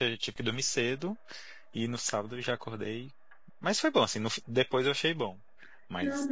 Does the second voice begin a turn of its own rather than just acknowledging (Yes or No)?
Yes